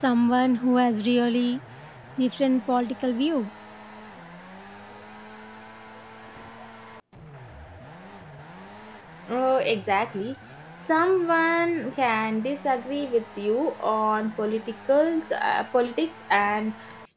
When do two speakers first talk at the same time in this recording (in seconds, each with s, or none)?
none